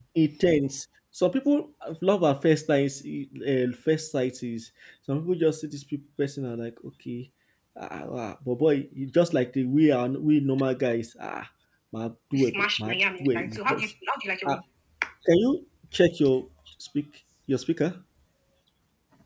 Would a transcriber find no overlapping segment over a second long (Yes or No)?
No